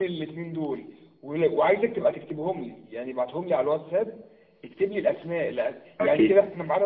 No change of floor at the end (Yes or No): Yes